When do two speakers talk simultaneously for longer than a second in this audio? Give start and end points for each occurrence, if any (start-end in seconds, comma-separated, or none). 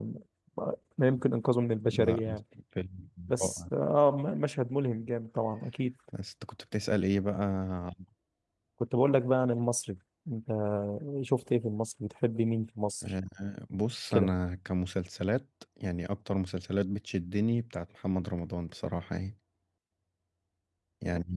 none